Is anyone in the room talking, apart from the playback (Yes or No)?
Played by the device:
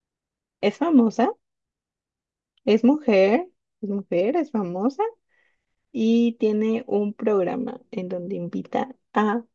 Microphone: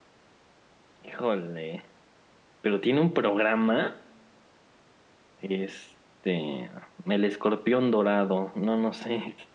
Yes